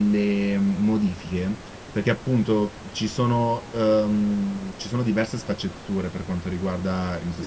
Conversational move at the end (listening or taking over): listening